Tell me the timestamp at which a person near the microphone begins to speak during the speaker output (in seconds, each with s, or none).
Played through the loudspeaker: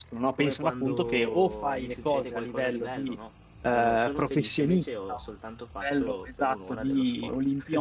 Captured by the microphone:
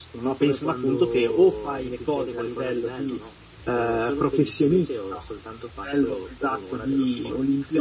none